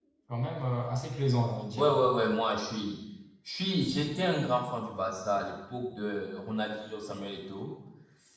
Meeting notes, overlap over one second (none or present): none